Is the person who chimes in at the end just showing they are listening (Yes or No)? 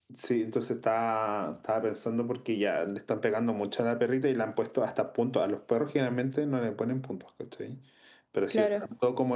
Yes